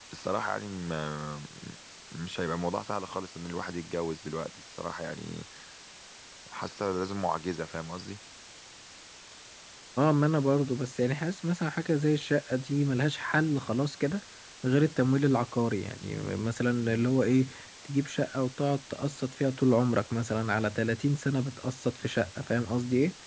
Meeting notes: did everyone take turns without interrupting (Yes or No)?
Yes